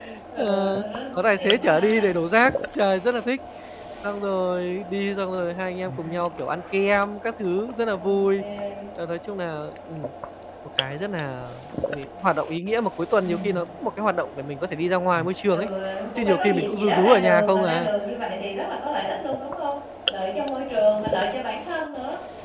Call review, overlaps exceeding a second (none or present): present